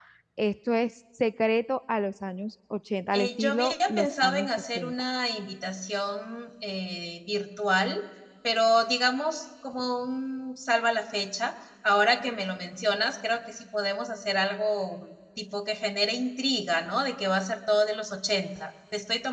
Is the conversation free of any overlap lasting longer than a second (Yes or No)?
No